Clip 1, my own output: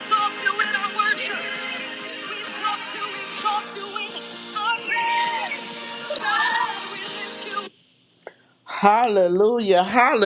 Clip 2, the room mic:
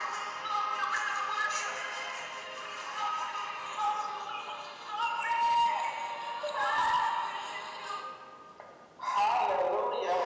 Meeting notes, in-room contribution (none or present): none